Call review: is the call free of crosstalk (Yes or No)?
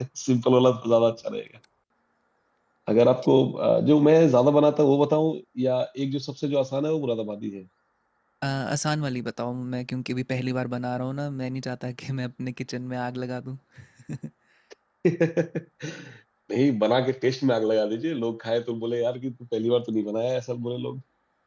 Yes